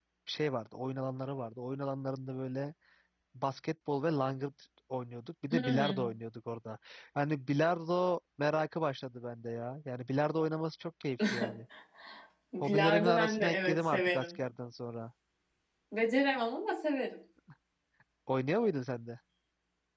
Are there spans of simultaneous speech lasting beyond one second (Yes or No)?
Yes